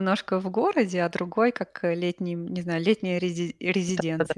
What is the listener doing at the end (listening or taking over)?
taking over